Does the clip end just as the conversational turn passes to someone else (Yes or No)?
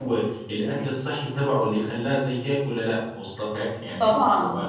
Yes